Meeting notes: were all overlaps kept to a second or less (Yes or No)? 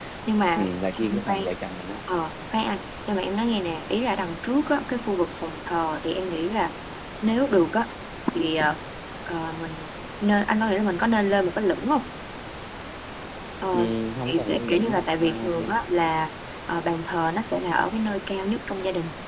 No